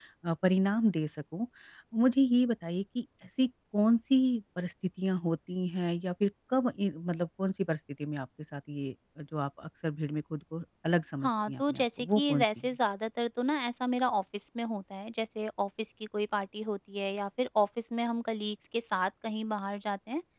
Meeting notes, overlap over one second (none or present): present